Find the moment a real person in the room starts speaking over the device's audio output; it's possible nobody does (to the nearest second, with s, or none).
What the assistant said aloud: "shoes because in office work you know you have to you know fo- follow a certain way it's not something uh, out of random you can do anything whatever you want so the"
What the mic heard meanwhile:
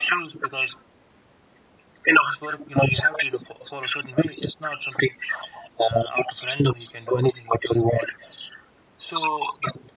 none